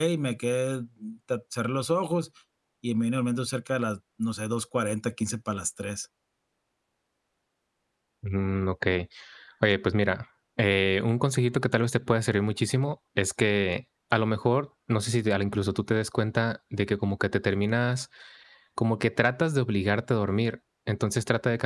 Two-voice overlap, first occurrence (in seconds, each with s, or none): none